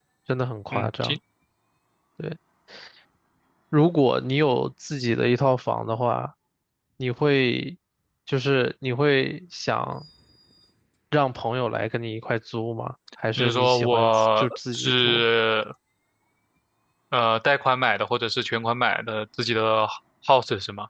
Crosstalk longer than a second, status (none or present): present